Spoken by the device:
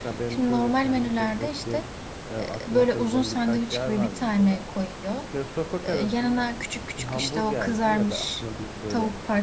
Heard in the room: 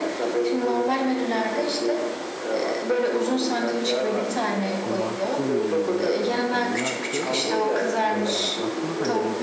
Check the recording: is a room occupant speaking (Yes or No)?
Yes